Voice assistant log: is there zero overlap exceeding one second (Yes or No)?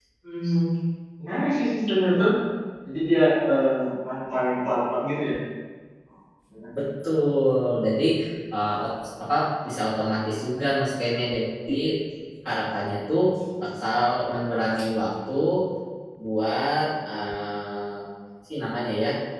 Yes